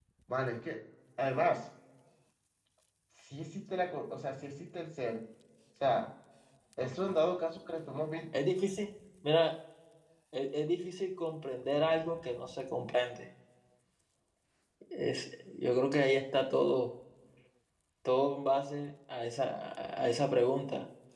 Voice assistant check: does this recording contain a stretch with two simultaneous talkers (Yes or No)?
No